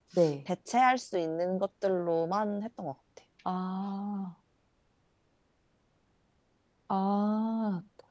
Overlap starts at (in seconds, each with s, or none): none